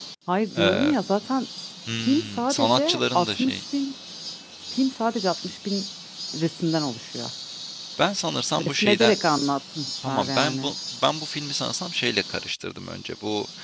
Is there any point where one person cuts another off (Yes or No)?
Yes